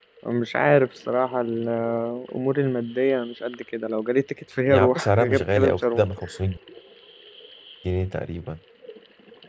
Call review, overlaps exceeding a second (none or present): present